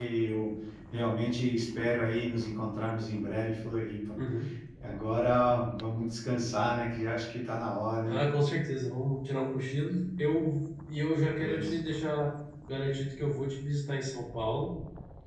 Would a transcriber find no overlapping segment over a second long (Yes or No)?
Yes